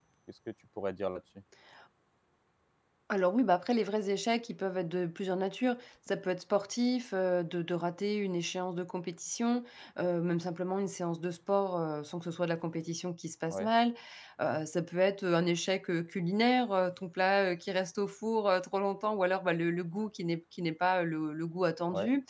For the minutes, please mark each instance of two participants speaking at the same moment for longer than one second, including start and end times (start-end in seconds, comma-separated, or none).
none